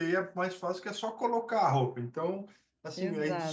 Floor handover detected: No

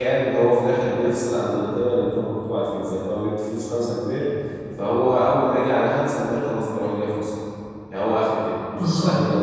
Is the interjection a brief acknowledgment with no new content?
No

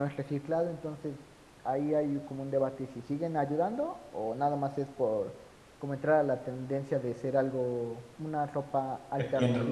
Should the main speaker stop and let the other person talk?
Yes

